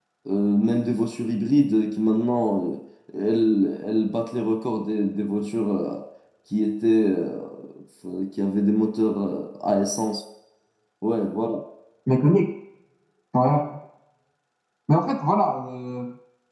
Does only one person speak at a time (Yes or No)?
Yes